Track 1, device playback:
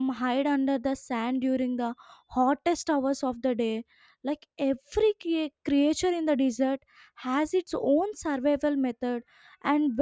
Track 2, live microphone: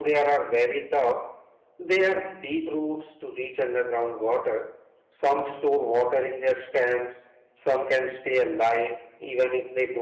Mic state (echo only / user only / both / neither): user only